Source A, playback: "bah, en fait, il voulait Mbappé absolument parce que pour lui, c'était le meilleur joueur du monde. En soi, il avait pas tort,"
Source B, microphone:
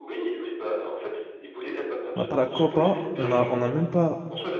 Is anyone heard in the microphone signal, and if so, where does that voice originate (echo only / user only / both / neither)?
both